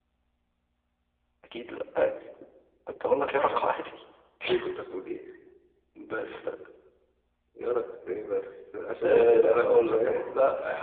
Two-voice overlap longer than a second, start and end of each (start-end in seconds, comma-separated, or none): 9.0-10.2